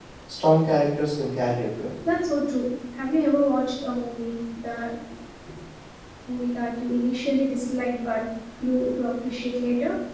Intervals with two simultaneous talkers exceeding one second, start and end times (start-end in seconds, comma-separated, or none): none